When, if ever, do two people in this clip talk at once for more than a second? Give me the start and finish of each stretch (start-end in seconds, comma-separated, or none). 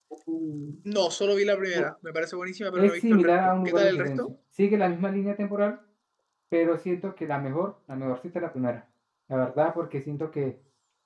2.8-4.2